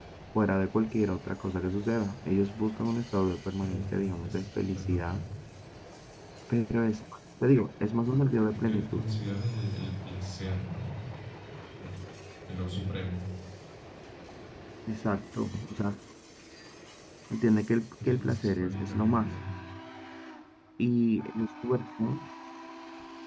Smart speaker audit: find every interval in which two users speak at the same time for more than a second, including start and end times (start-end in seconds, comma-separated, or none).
3.6-5.2, 18.0-19.3